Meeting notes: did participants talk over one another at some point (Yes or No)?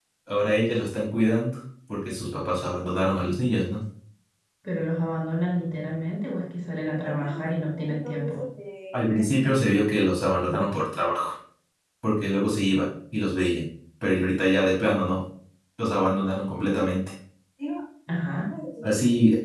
Yes